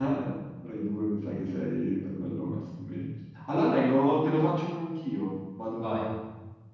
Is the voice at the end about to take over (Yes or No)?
No